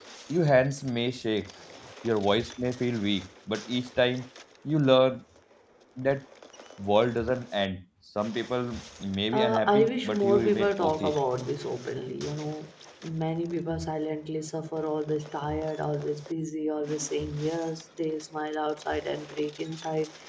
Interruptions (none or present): present